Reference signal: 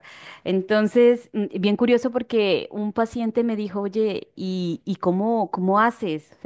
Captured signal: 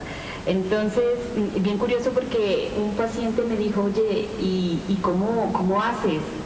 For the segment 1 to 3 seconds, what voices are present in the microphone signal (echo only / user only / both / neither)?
echo only